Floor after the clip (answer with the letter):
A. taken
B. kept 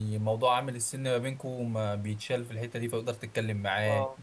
B